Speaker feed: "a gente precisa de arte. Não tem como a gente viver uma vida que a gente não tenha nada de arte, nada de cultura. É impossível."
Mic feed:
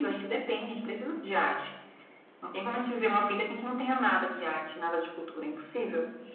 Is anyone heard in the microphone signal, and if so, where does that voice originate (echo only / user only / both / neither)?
echo only